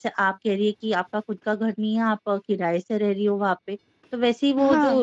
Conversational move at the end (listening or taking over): listening